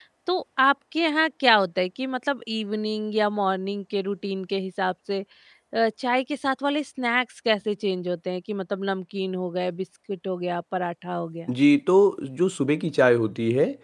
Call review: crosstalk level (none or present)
none